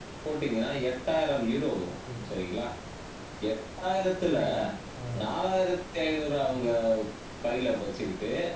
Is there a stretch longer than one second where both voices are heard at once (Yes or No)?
No